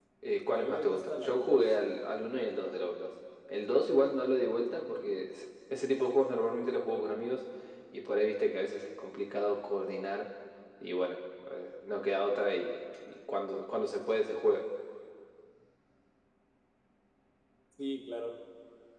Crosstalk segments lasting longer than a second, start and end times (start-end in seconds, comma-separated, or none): 0.5-1.8